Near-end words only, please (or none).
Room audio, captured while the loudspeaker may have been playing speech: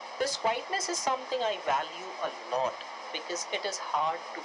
none